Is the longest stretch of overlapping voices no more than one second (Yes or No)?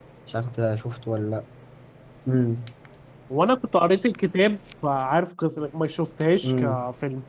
Yes